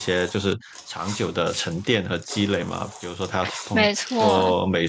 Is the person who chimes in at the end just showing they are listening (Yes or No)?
Yes